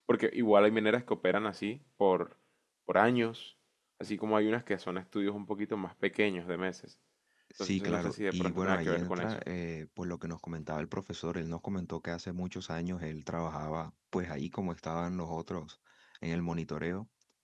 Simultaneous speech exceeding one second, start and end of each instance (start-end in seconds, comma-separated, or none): 7.6-9.4